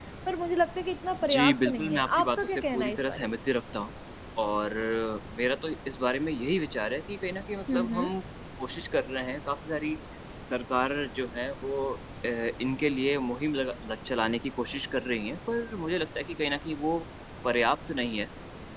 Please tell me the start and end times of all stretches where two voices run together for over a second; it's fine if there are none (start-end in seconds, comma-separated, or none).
1.3-3.3